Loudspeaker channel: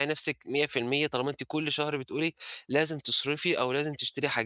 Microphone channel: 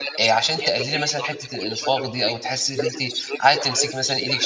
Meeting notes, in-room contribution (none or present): present